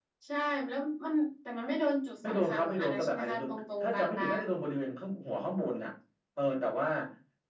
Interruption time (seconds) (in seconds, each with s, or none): 2.2 s